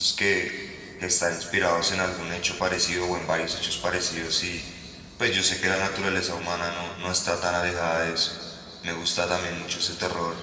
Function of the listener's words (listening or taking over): listening